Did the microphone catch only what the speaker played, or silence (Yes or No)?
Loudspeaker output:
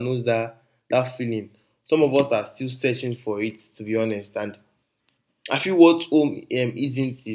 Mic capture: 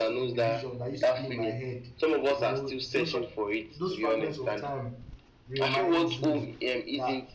No